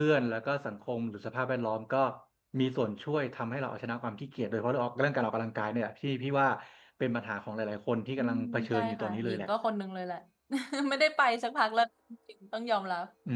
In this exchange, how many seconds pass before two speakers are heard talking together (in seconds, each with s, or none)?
8.2 s